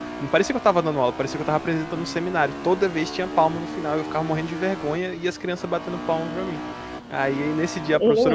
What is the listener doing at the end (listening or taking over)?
listening